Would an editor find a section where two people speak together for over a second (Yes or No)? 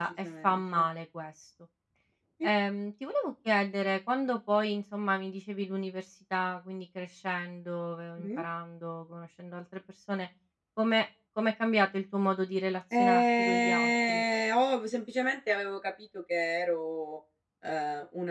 Yes